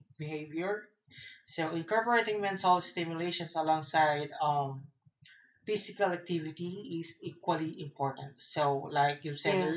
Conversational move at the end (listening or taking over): listening